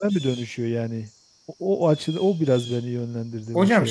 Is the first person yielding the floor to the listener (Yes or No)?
Yes